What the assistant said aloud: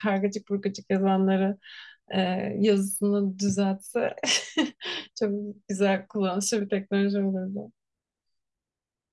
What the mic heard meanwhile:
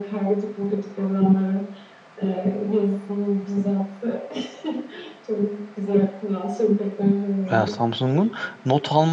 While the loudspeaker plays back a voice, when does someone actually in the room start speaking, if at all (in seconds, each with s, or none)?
7.5 s